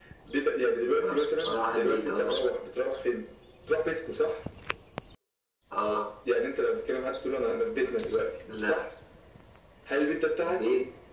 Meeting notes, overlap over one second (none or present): present